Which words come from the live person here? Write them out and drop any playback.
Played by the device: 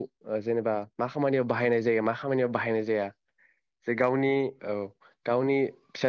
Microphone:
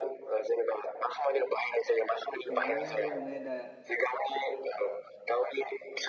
जों बयनोबो माने दा

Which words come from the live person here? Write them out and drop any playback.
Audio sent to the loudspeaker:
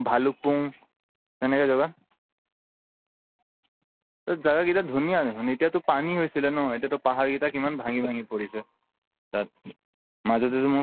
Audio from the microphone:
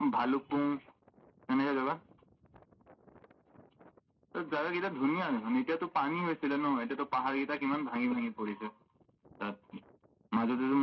none

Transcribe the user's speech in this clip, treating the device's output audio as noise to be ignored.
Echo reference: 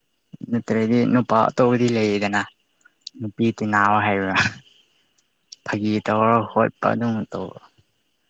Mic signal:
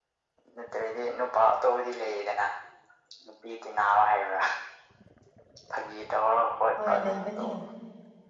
ꯍꯣꯏ ꯂꯩꯕꯅꯦ

